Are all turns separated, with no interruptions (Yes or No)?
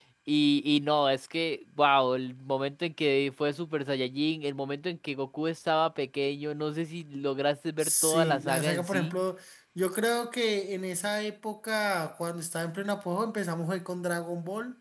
No